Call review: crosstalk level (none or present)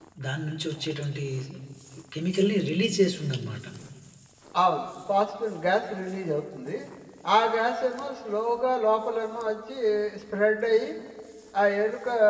none